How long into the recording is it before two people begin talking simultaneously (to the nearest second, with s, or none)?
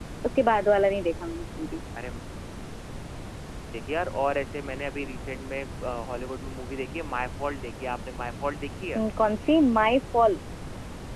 none